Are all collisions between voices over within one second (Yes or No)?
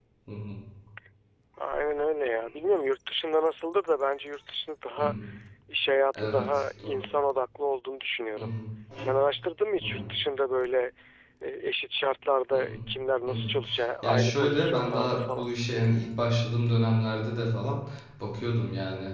No